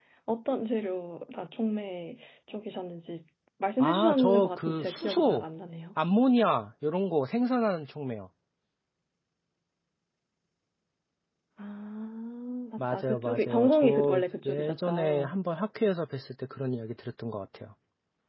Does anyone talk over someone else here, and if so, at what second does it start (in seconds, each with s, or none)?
3.8 s